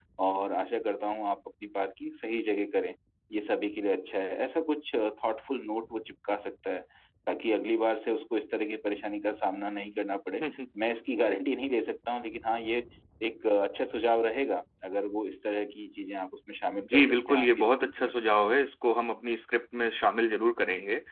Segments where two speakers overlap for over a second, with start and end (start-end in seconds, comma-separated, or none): 16.9-18.1